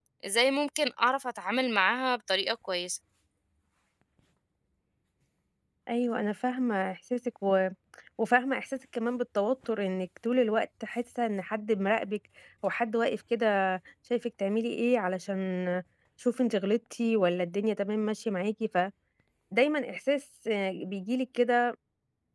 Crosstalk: none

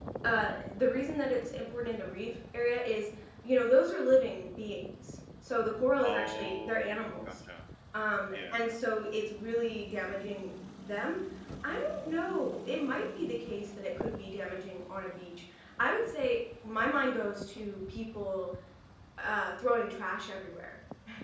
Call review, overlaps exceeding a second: present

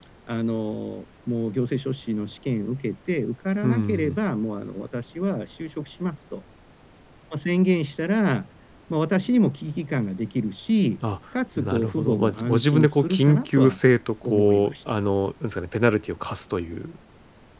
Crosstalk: present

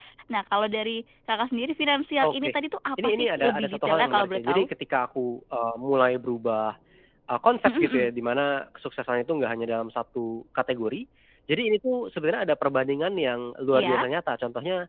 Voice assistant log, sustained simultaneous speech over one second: present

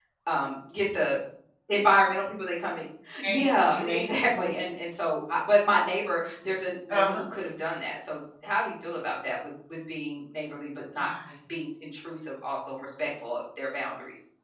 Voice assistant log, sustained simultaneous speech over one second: present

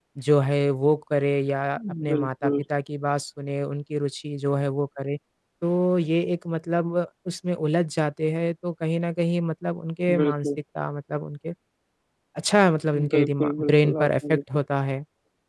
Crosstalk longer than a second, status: present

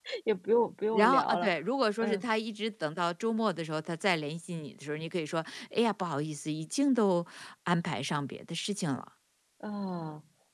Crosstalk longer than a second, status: none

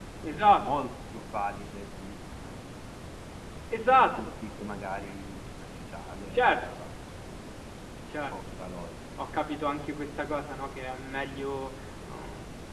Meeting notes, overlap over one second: none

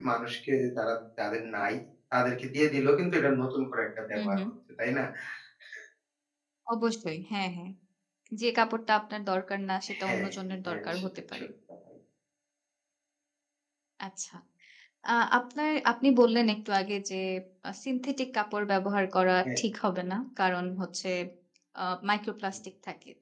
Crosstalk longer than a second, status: present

